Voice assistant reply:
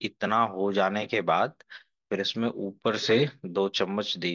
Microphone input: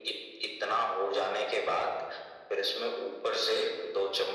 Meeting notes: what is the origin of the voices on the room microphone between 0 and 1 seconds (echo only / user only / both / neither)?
echo only